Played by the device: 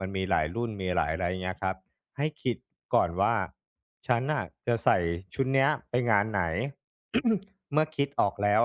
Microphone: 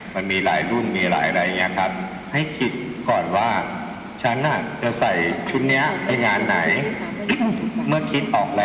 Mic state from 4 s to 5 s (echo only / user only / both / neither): echo only